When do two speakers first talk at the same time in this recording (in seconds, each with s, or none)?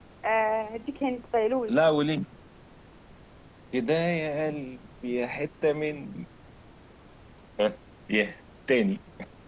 none